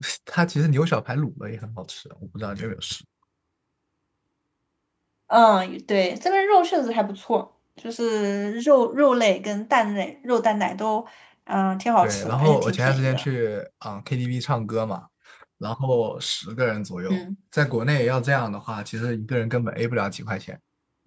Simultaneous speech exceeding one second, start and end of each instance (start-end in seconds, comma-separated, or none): 12.0-13.2